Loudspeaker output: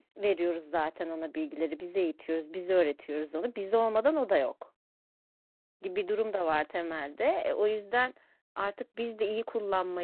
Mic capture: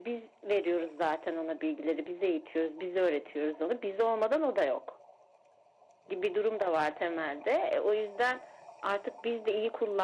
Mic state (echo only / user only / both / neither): echo only